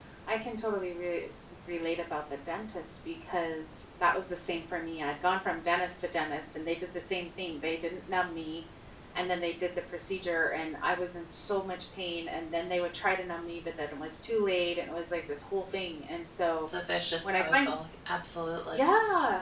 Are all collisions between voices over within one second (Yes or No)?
Yes